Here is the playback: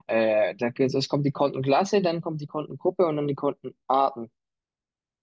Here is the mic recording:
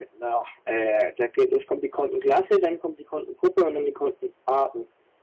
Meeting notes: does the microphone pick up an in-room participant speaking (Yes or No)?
No